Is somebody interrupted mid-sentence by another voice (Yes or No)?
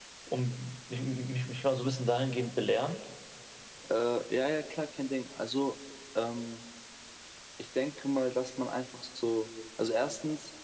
No